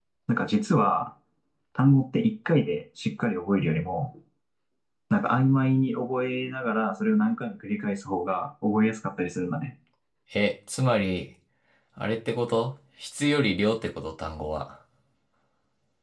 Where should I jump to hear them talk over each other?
none

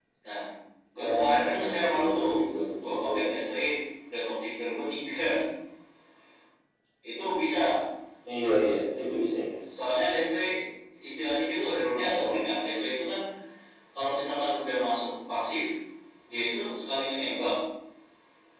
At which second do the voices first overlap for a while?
1 s

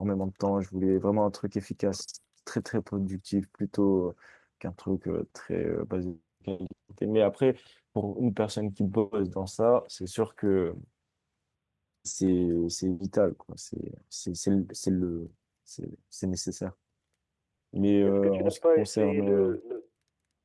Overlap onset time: 18 s

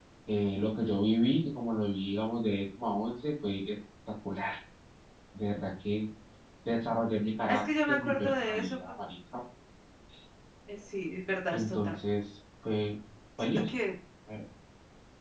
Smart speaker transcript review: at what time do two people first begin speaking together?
7 s

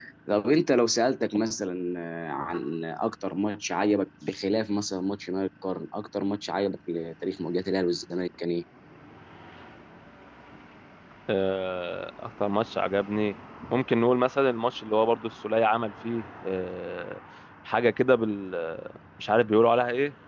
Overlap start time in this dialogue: none

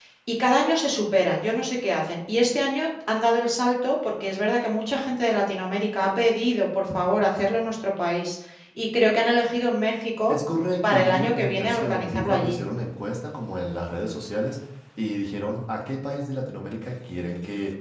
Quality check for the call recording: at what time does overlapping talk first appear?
11 s

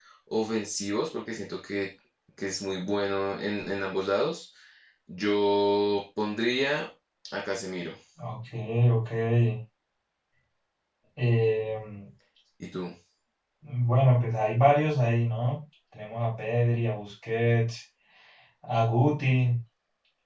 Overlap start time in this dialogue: none

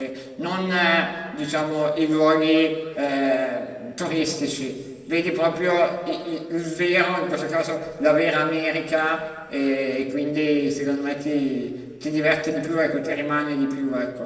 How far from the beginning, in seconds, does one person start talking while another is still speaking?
none

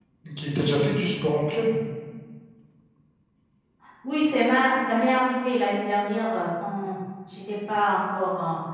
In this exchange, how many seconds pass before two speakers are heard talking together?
none

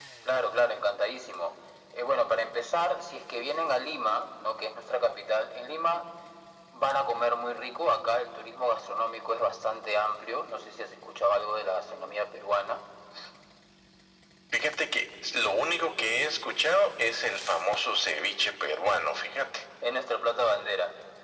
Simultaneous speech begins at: none

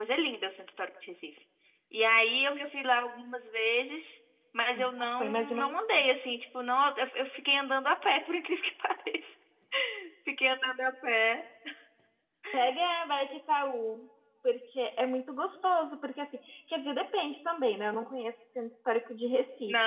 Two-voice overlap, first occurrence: 5 s

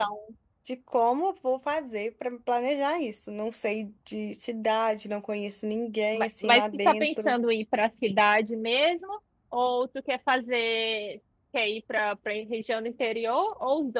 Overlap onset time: 6 s

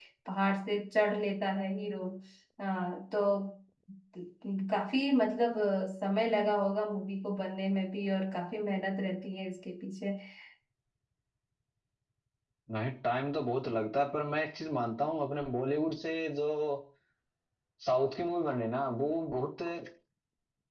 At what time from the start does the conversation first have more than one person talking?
none

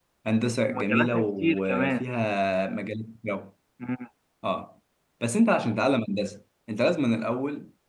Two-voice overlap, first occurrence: 1 s

